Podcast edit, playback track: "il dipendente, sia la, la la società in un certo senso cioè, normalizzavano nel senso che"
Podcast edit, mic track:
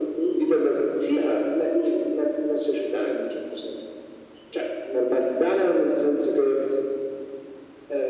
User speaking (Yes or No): No